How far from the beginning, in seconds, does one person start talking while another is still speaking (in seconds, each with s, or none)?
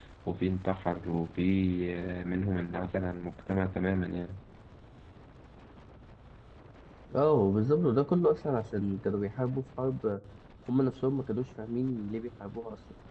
none